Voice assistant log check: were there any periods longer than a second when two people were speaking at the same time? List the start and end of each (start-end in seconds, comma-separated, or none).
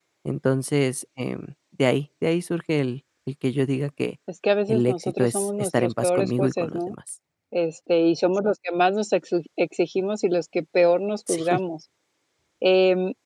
4.7-6.9